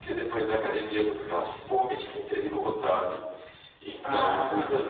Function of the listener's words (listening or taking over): listening